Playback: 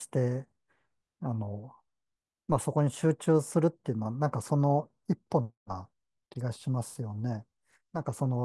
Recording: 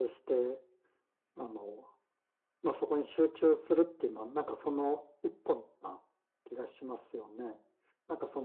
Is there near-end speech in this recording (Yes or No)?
No